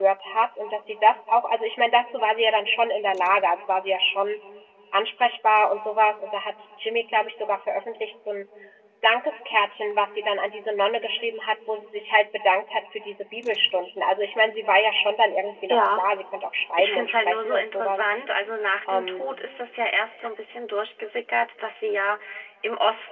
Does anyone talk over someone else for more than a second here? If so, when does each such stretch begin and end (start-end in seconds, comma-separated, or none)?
16.8-18.0